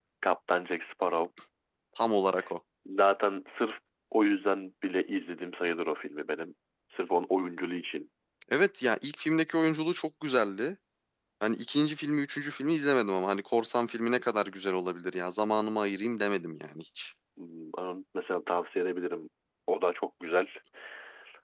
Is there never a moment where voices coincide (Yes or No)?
Yes